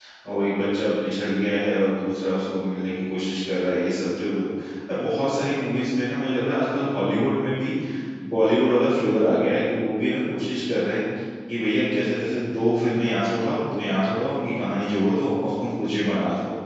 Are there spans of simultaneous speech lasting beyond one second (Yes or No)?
No